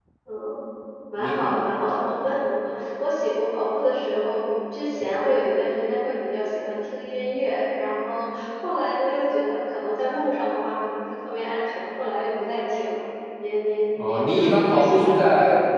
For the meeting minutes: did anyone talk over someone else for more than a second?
Yes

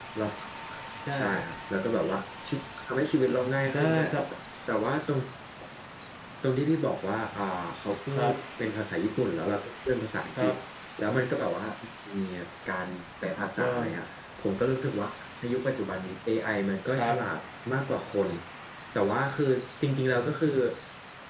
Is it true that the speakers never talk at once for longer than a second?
Yes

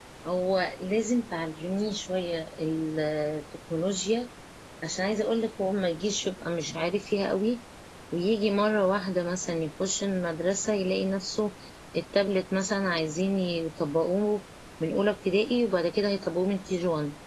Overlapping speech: No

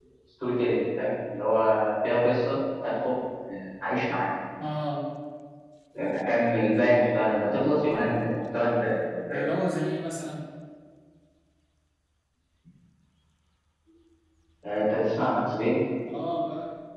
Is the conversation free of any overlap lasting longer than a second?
Yes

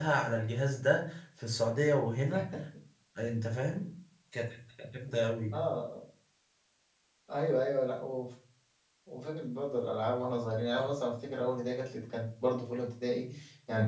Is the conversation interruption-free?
Yes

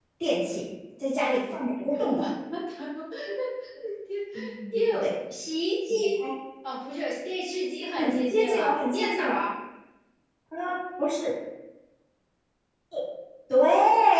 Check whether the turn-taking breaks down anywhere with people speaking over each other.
Yes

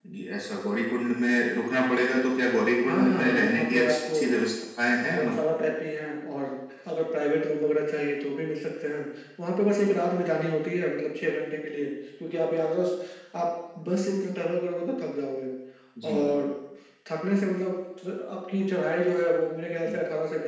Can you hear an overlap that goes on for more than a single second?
Yes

